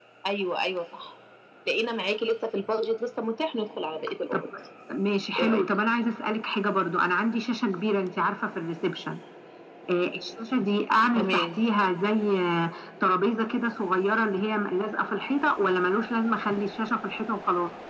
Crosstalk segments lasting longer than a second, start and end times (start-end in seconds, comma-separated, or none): none